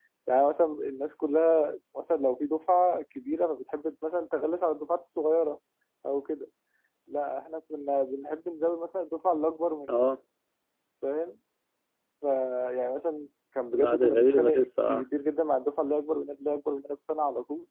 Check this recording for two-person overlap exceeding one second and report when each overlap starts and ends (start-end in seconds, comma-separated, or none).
13.7-15.0